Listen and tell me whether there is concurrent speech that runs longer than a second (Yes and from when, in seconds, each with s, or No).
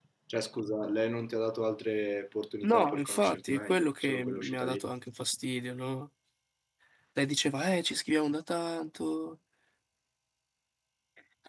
Yes, from 2.6 s